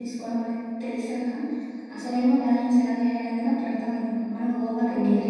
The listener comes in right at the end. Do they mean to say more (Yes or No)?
No